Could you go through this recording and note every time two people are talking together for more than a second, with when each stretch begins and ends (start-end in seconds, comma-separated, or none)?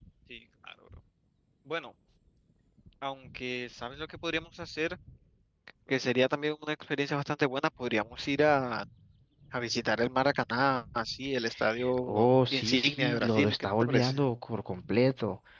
12.0-14.2